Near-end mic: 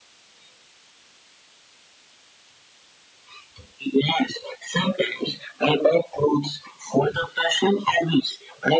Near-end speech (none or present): none